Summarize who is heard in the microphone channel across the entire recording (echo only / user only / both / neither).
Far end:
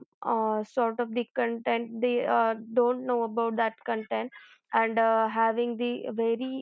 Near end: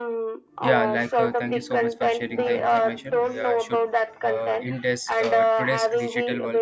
both